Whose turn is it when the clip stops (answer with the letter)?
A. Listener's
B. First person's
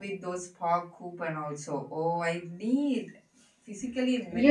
A